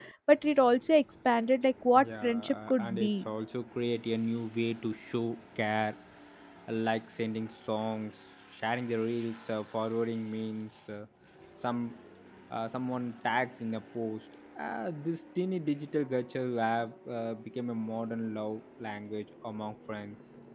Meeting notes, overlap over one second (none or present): present